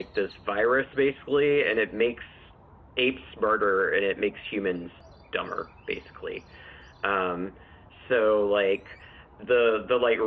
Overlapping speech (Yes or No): No